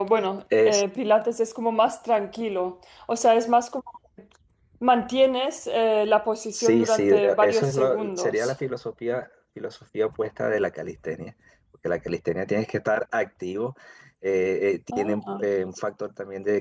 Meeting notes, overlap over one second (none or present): present